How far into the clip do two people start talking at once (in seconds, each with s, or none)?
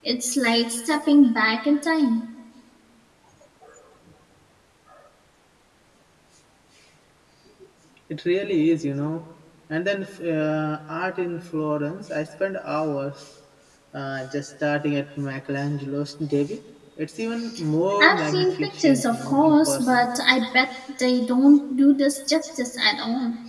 18.0 s